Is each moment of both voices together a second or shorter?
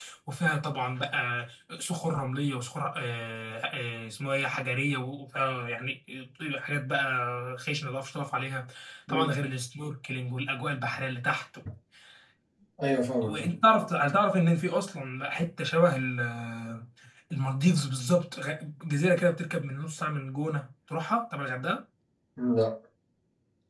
Yes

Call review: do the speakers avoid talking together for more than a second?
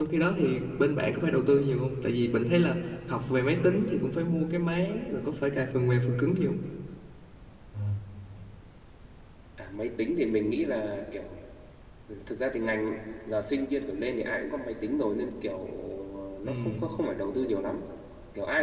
Yes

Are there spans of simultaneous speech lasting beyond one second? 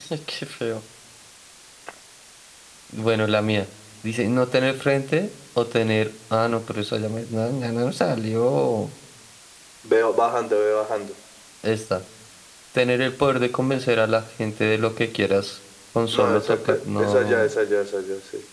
Yes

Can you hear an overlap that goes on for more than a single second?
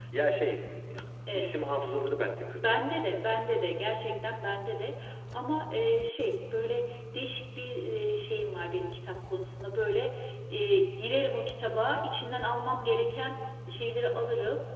No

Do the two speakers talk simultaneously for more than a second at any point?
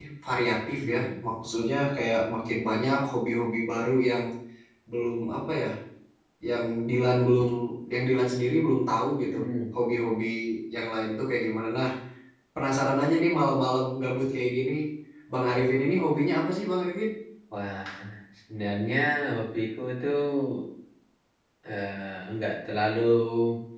No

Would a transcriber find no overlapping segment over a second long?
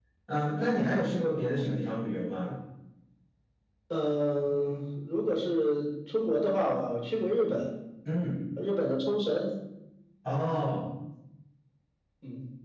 Yes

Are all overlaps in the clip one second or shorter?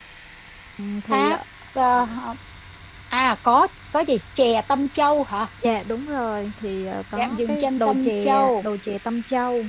No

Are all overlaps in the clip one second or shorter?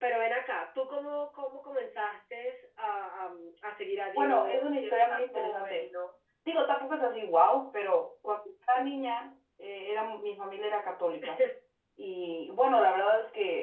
No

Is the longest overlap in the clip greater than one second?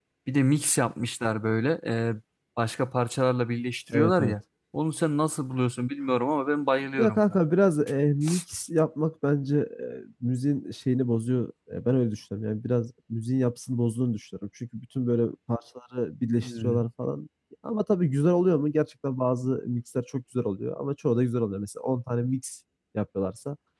No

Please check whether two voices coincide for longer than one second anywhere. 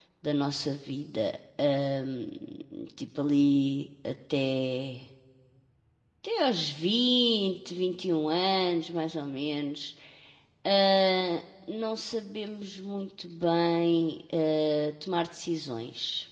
No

